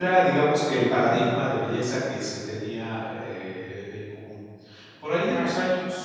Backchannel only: Yes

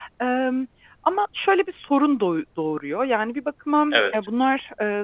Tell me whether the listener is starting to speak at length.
No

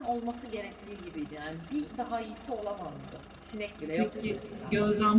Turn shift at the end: Yes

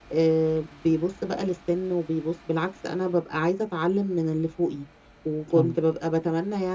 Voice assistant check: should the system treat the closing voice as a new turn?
No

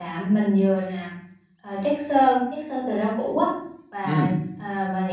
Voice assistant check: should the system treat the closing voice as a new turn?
No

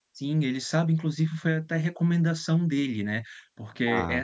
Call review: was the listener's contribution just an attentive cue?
Yes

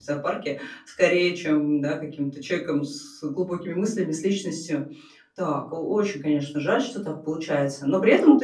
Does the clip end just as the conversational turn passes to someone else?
No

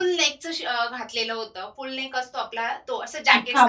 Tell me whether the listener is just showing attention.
No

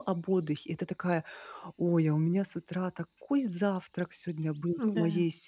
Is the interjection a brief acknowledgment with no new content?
Yes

